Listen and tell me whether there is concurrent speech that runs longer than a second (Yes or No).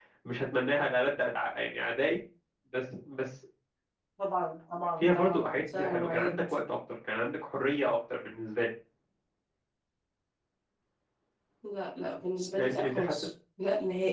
Yes